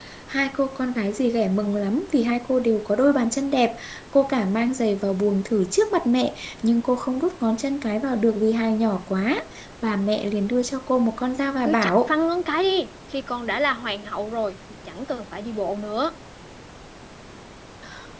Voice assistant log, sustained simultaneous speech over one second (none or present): none